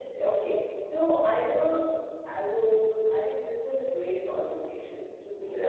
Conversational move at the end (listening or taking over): listening